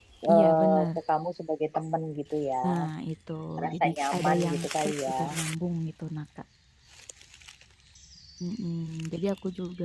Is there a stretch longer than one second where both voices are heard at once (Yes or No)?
Yes